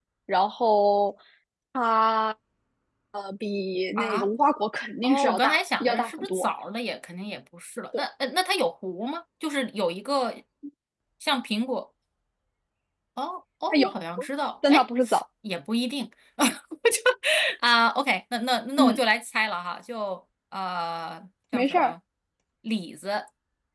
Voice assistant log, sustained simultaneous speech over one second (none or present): present